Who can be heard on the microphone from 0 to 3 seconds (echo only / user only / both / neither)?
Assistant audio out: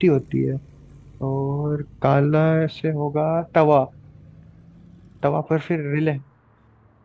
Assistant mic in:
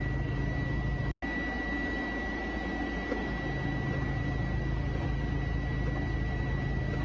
neither